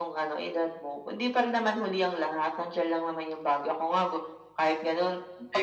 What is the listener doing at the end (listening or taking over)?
taking over